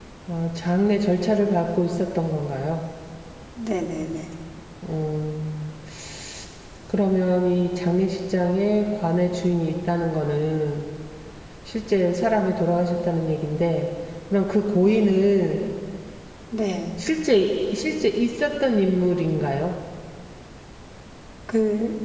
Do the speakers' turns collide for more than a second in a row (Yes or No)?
No